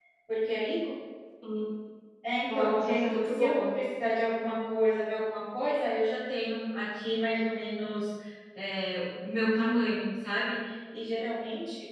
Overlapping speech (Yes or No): Yes